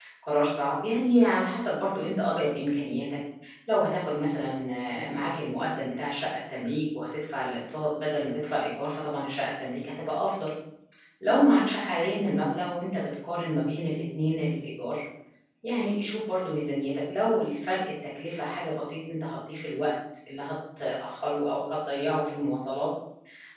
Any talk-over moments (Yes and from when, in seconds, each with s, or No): No